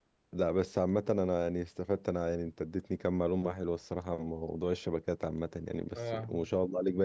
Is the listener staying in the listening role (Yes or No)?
Yes